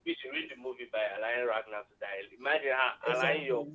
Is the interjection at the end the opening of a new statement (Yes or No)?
No